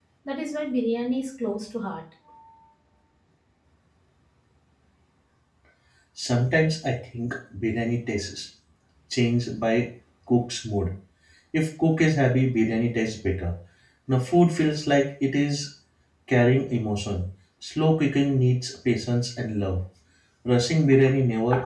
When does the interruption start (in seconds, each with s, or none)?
none